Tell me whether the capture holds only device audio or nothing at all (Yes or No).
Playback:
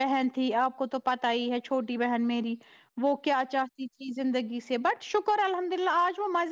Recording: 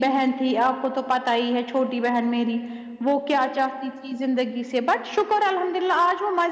Yes